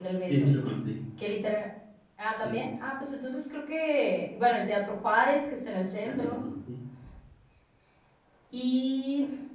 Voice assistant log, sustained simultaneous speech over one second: none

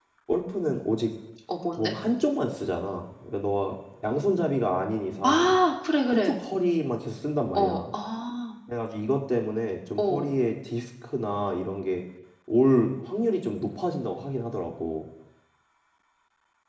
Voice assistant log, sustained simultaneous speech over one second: none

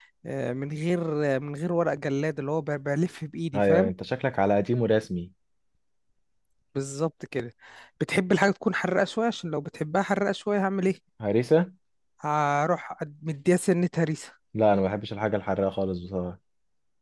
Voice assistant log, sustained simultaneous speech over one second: none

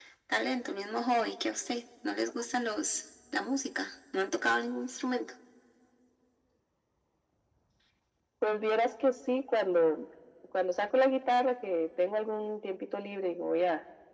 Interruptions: none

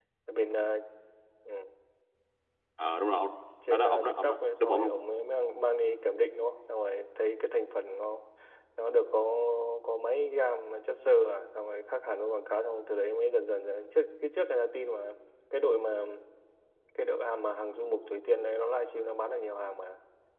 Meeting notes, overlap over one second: present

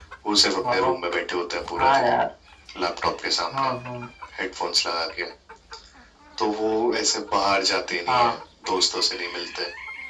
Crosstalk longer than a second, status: none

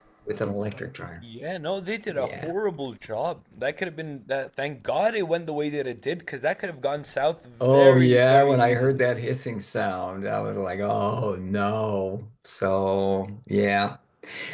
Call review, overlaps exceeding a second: present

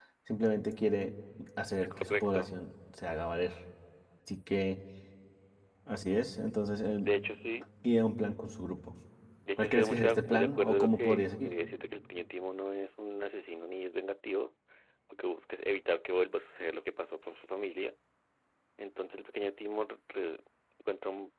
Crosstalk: present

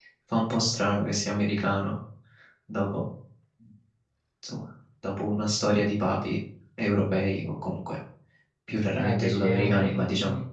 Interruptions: present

